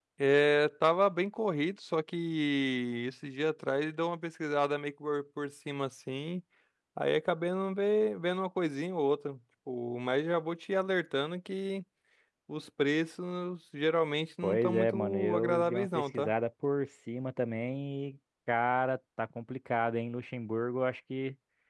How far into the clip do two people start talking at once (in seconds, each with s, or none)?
14.4 s